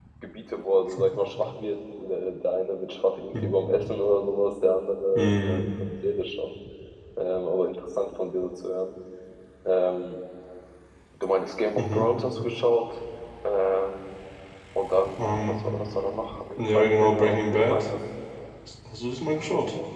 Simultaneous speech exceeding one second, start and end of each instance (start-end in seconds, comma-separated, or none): 16.6-17.9